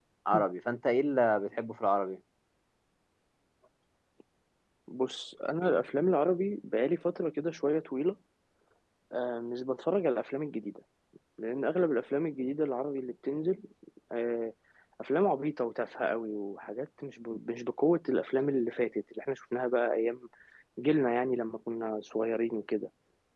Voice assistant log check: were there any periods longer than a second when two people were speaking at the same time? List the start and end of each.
none

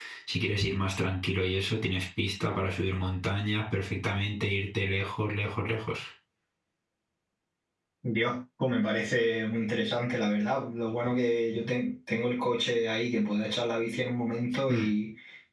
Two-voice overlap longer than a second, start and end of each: none

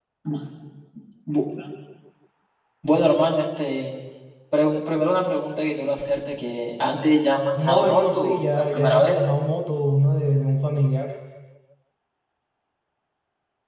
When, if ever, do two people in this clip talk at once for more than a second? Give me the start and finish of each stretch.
7.6-9.2

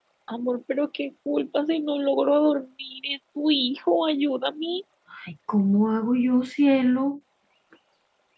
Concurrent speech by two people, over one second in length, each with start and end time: none

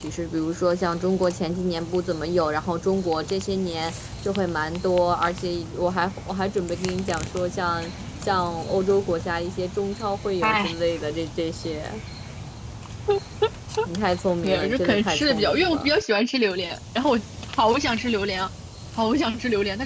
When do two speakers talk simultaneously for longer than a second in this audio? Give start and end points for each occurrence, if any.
14.4-15.9

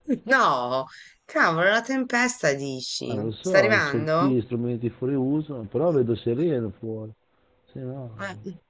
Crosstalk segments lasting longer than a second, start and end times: 3.1-4.3

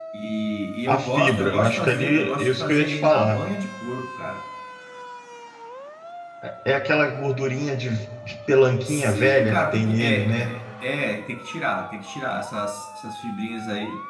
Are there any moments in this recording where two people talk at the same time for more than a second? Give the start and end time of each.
0.9-3.4, 8.8-10.6

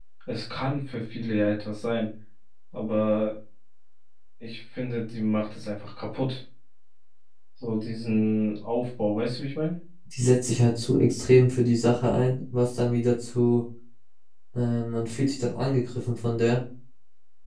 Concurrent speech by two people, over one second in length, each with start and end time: none

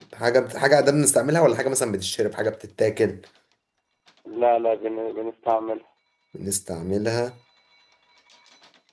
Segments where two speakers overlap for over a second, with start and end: none

